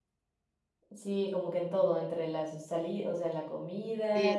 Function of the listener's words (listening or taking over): taking over